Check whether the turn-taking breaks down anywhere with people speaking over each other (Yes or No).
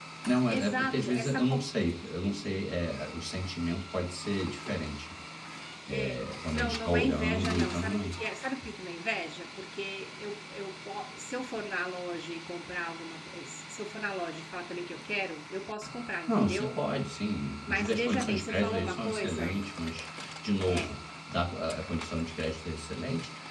Yes